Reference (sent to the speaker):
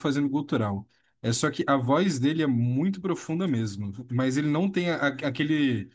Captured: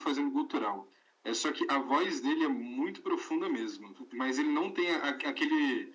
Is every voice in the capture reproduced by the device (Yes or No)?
Yes